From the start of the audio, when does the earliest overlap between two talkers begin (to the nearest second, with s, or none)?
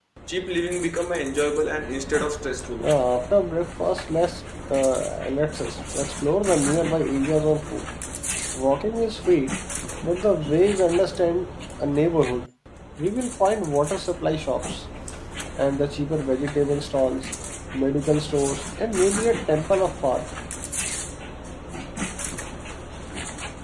none